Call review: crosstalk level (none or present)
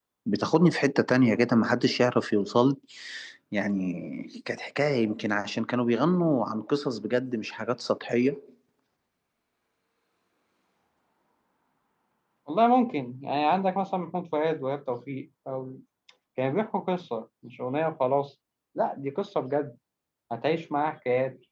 none